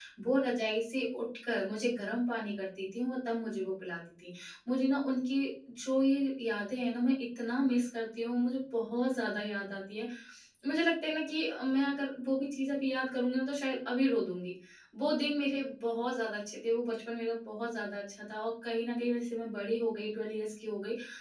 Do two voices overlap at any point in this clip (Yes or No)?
No